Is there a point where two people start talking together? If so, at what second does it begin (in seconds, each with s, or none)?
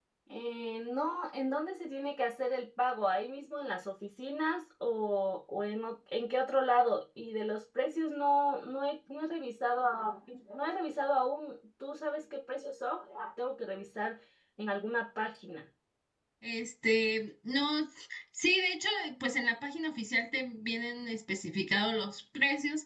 none